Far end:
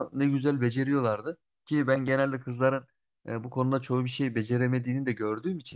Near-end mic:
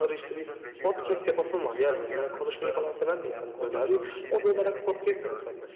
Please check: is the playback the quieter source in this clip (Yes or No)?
Yes